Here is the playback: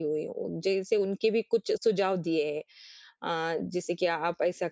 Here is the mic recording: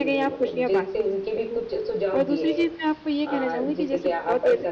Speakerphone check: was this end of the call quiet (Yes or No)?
No